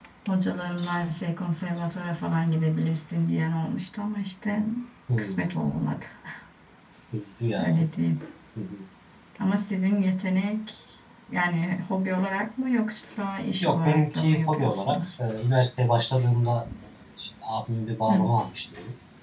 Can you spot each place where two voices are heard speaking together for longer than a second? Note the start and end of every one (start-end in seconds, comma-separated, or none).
13.6-15.0